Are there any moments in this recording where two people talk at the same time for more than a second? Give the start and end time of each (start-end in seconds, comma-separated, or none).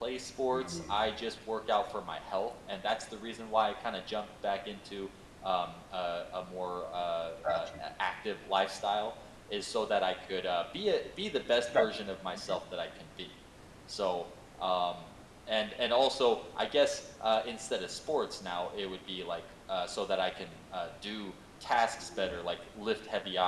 none